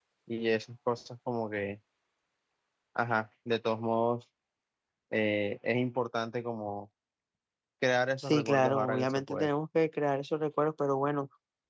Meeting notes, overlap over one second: present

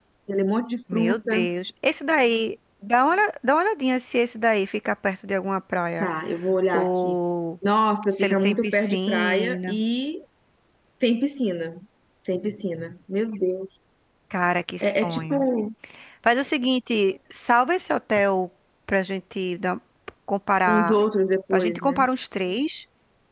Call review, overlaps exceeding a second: present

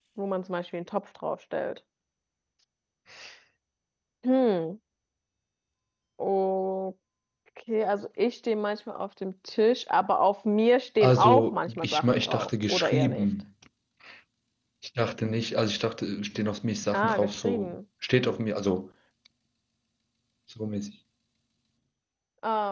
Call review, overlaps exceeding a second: present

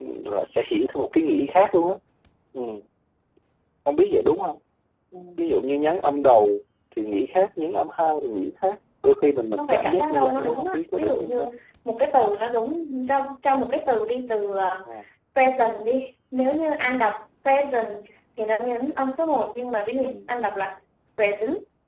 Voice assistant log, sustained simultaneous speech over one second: present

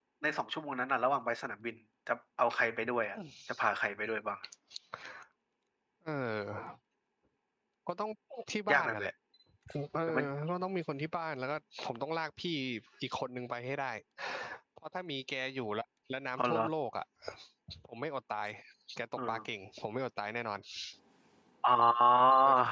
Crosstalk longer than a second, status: none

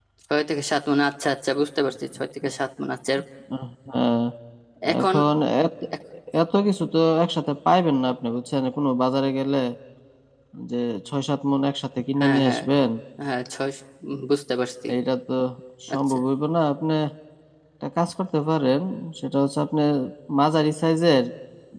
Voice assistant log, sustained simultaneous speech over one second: none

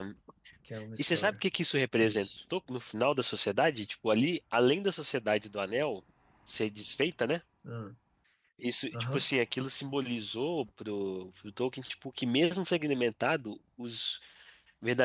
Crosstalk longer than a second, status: none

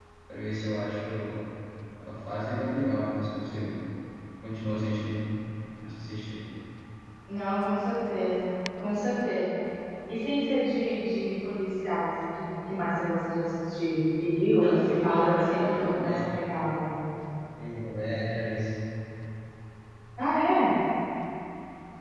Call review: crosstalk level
present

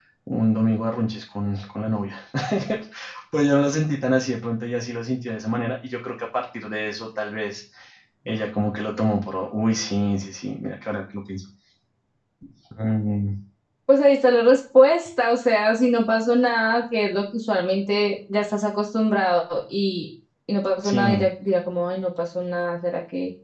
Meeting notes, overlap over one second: none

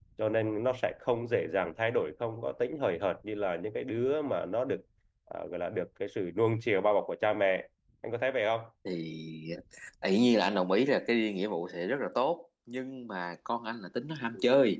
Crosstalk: none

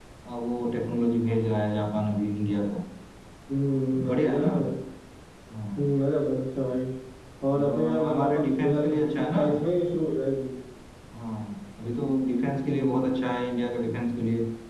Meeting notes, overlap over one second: present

